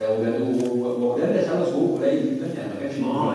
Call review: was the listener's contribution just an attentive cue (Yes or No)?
No